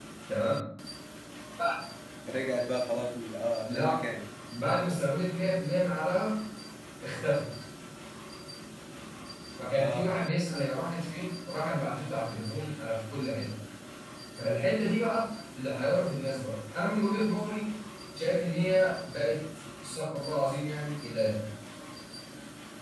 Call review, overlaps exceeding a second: none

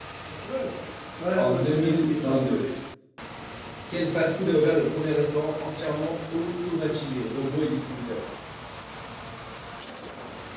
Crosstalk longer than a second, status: present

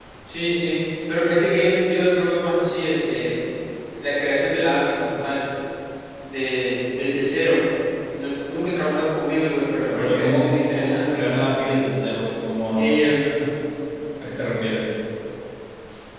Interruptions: present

